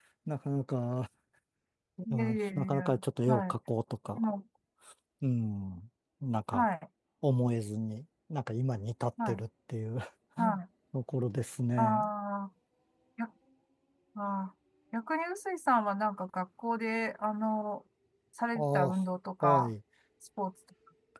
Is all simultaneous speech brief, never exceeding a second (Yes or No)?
No